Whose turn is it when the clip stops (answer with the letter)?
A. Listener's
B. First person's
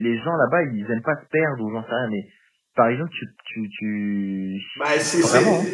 A